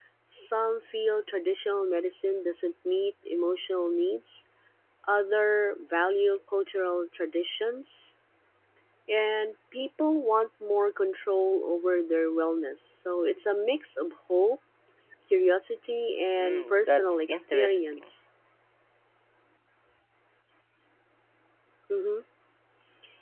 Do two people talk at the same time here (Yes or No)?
Yes